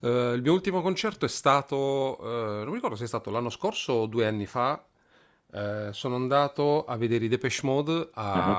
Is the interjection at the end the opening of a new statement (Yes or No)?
No